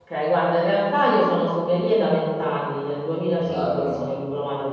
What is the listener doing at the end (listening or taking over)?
listening